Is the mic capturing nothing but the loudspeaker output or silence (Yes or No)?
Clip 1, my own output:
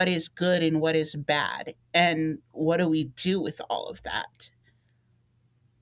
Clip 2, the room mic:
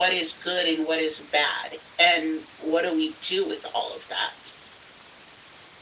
Yes